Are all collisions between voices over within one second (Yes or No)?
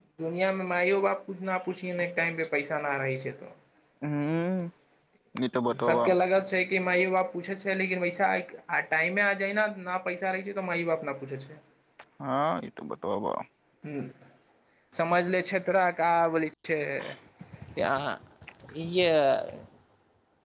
Yes